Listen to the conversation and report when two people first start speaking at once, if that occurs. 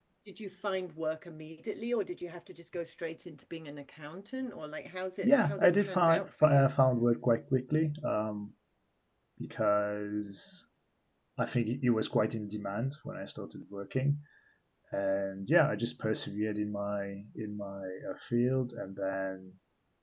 5.2 s

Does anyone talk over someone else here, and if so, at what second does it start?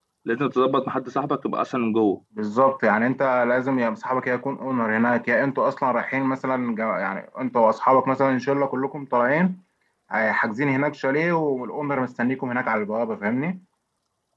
none

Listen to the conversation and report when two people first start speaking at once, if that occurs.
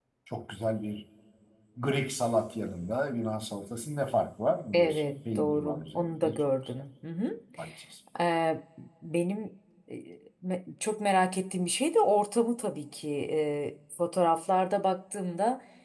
4.7 s

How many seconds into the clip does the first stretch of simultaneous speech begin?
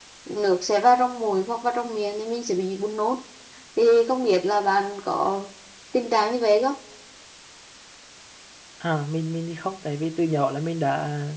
none

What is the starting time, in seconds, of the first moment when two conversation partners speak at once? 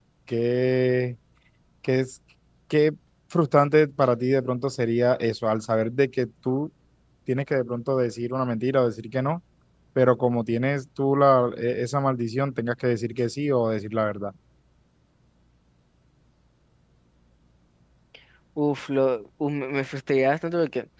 none

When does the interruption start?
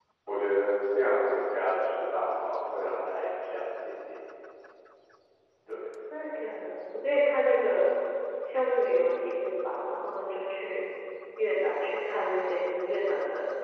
none

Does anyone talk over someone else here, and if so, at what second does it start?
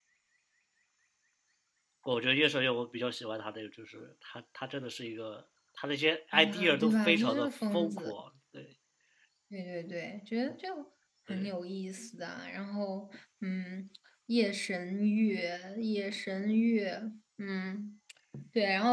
6.3 s

